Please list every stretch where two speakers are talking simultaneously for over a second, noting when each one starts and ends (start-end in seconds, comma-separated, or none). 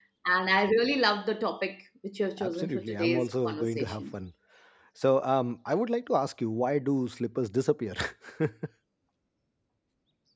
2.4-4.0